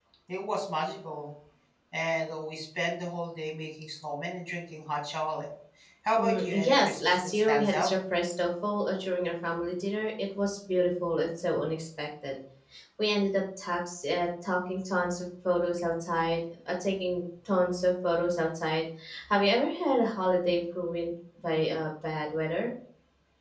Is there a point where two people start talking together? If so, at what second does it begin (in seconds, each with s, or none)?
6.2 s